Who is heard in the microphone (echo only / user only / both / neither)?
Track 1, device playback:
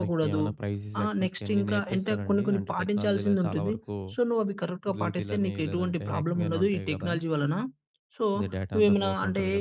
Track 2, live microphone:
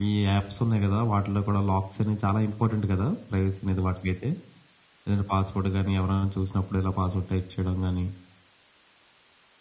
user only